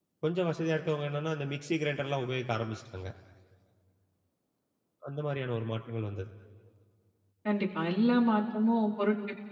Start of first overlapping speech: none

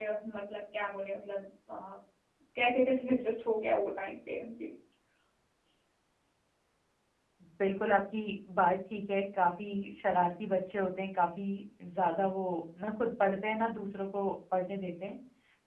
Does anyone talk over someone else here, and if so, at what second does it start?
none

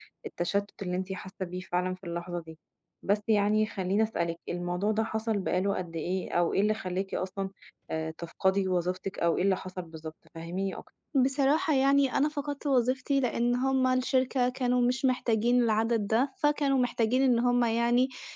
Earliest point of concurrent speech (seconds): none

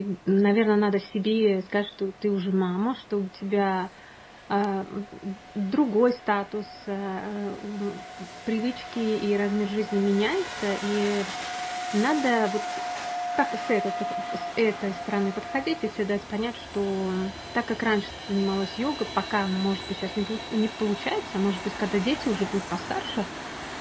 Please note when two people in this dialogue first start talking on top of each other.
none

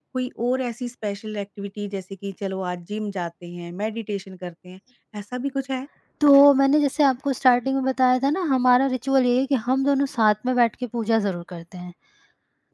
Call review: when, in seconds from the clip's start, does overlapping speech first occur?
none

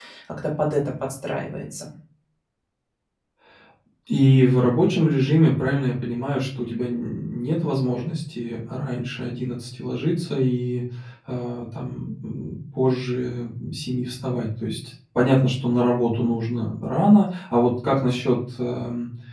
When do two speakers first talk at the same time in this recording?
none

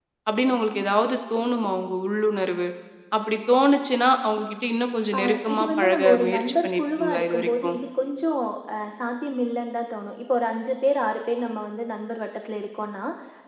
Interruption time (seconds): 5.1 s

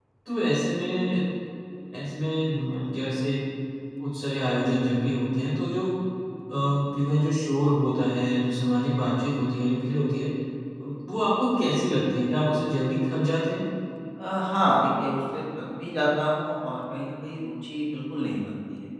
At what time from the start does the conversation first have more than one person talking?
none

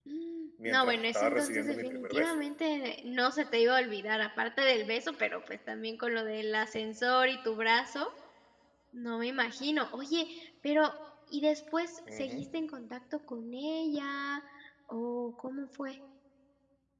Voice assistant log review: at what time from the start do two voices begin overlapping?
0.7 s

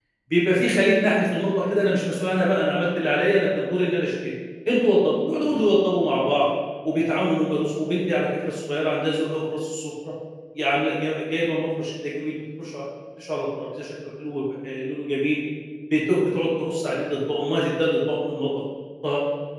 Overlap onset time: none

